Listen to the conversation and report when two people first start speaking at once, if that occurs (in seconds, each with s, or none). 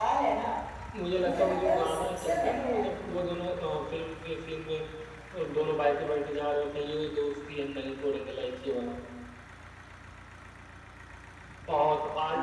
1.2 s